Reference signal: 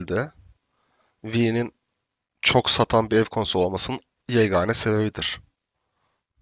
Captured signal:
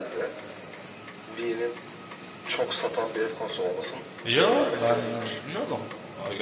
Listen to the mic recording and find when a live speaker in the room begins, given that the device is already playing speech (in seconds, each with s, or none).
4.2 s